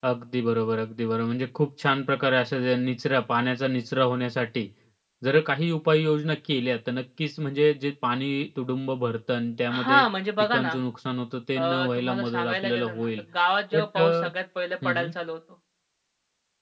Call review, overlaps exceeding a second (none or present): present